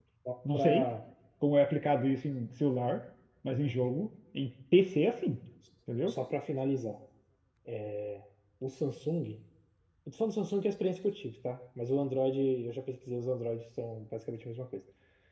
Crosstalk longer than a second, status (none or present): none